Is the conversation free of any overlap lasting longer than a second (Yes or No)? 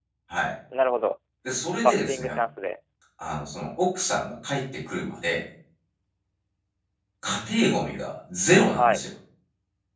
Yes